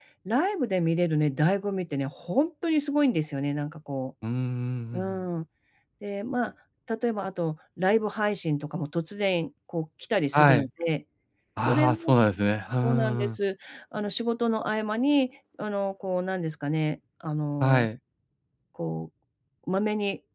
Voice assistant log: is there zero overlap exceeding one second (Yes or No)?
Yes